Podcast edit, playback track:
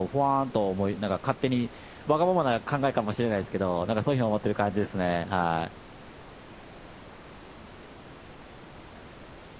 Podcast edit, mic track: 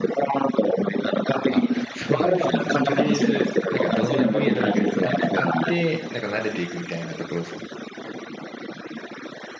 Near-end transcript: あ、そうなんですね。もうとりあえず、なんかどんな分野でもいいから一旦使って、なんか慣れていくみたいなところですか。

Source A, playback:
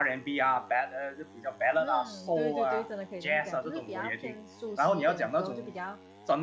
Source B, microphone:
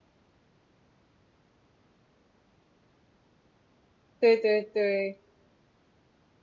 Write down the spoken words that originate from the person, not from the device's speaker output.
对对对

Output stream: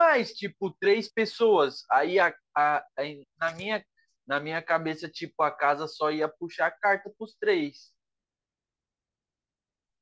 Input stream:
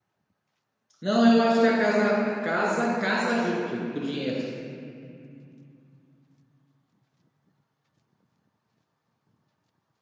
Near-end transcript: Não, eu acho que a casa a casa casa junto com o dinheiro.

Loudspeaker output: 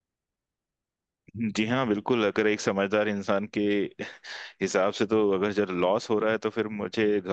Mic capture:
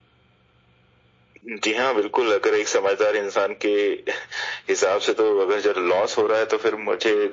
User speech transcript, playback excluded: none

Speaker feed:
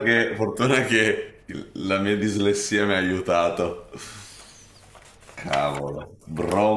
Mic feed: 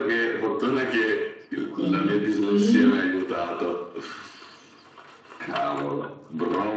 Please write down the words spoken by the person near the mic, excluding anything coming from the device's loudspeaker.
Quindi ti...

